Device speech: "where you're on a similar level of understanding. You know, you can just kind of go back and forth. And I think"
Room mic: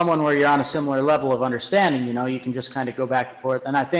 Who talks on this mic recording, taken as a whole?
echo only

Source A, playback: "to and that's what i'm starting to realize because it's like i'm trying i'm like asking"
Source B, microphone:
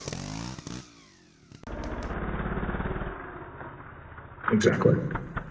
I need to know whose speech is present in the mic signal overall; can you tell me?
user only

